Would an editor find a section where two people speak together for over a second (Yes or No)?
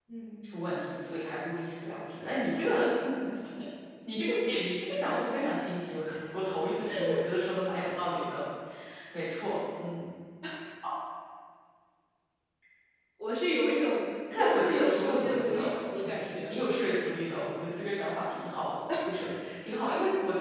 Yes